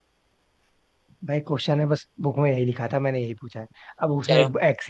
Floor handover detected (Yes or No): No